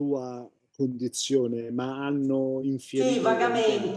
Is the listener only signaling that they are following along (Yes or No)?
No